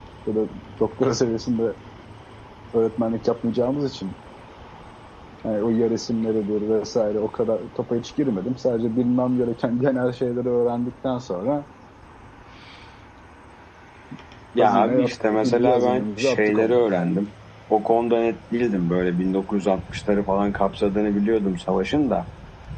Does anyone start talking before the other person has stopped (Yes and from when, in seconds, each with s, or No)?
Yes, from 14.6 s